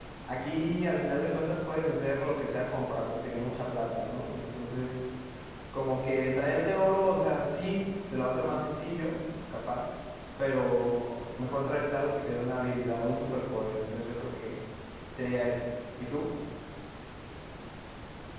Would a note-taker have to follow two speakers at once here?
No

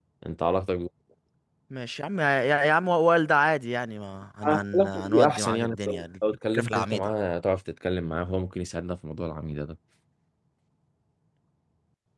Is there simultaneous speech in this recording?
Yes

